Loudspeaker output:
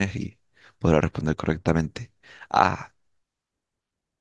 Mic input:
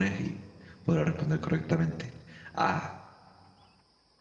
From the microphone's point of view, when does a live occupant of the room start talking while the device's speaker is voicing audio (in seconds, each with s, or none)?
none